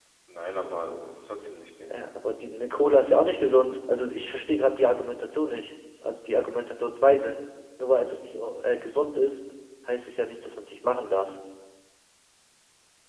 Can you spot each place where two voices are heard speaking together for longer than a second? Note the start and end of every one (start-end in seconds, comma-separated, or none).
none